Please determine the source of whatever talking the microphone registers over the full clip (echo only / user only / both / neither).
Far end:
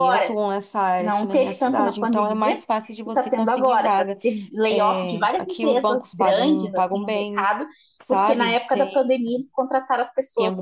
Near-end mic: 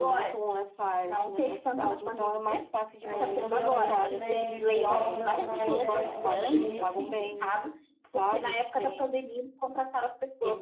both